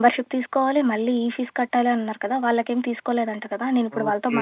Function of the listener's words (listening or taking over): taking over